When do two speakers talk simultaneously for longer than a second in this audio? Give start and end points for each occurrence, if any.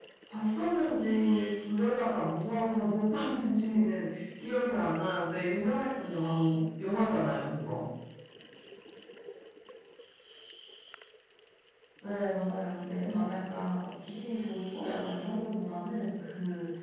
none

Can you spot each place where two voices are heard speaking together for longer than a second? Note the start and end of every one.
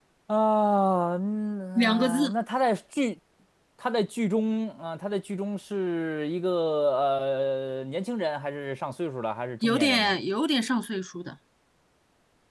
none

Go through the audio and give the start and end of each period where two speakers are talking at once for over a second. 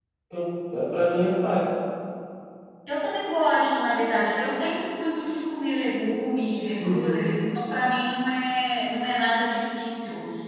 none

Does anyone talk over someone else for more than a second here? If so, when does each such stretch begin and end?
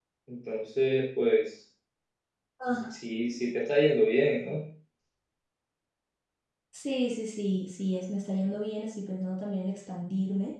none

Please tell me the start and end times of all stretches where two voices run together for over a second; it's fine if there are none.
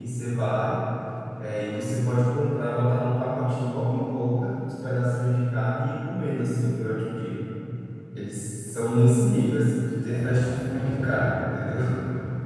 10.1-11.8

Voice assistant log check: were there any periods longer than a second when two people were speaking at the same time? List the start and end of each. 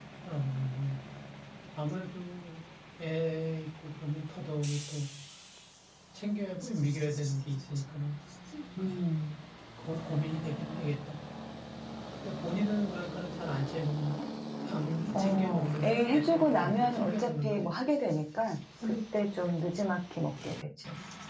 15.1-17.7

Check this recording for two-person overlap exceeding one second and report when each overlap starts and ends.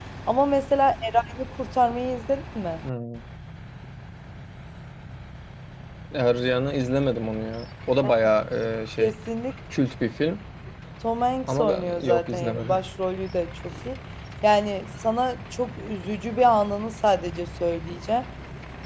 11.4-12.8

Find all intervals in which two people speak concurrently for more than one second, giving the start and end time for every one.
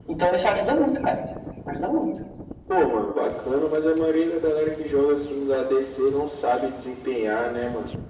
none

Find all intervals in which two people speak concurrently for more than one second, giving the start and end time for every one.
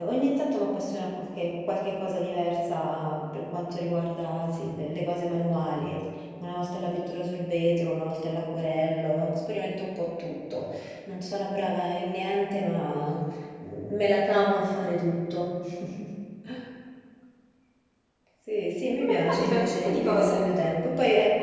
19.0-20.4

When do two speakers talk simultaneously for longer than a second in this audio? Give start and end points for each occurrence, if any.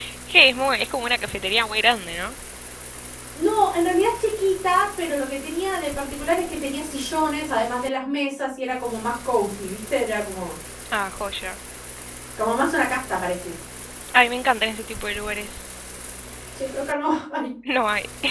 none

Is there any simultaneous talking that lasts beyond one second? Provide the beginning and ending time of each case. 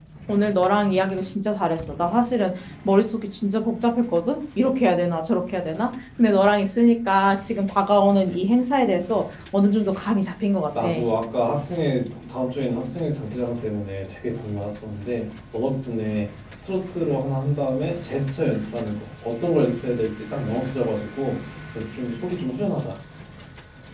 none

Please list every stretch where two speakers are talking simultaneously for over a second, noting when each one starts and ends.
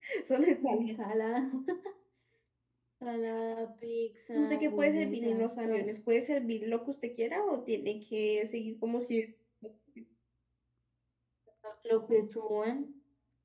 4.3-5.9

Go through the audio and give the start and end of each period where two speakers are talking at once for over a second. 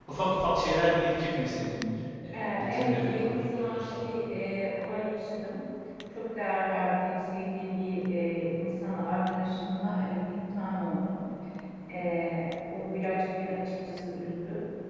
2.3-4.1

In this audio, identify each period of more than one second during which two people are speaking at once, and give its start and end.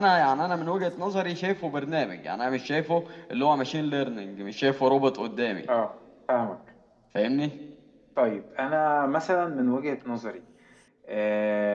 none

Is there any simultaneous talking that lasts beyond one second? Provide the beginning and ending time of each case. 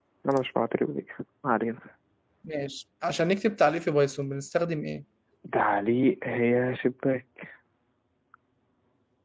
none

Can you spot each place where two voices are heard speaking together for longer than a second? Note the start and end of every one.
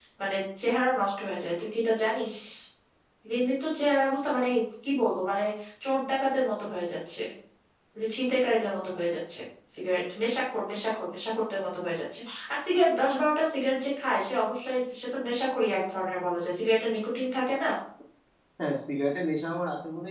none

